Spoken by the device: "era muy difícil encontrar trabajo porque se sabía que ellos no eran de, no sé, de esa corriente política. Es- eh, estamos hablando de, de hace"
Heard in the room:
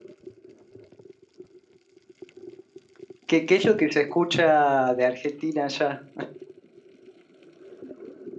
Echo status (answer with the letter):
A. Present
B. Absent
B